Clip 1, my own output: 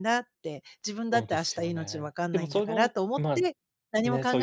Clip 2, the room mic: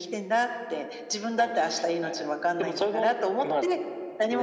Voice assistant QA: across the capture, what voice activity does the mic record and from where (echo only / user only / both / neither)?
echo only